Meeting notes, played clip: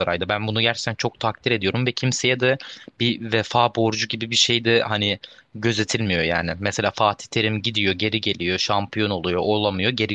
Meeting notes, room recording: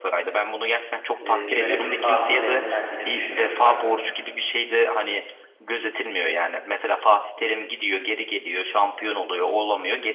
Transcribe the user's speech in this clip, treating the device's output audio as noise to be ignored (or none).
e, bir yönetim tarzı benimsendiğini düşünüyorum ben.